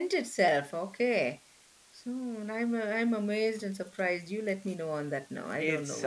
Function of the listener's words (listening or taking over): taking over